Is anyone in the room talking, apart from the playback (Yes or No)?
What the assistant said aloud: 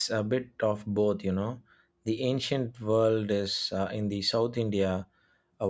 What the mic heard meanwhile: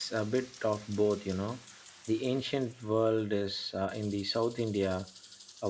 No